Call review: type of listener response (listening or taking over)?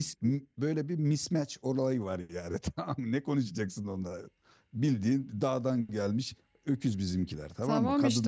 taking over